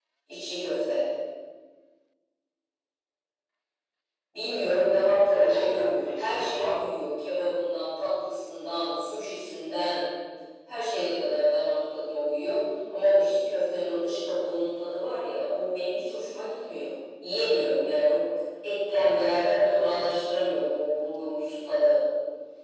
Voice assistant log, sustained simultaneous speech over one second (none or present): present